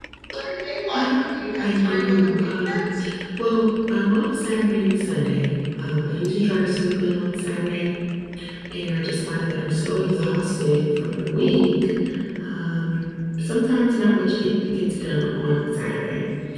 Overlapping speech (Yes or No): Yes